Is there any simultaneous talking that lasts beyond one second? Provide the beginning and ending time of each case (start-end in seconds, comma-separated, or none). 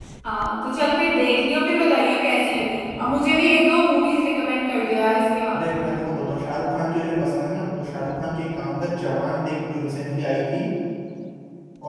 none